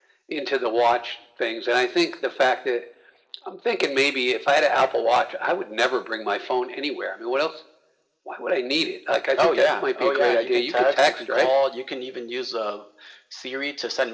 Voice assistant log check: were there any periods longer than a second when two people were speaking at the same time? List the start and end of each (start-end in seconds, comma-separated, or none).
9.4-11.5